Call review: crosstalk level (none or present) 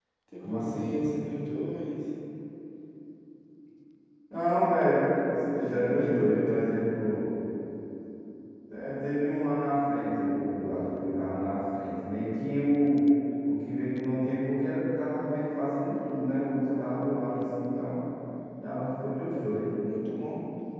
present